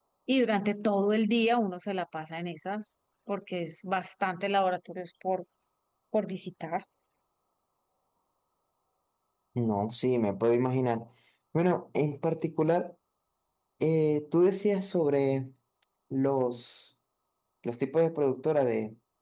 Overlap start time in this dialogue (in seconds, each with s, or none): none